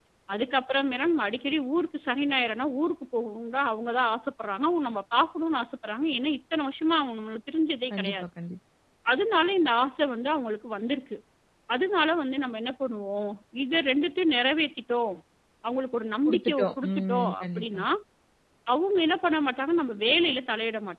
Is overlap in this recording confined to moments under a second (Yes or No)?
No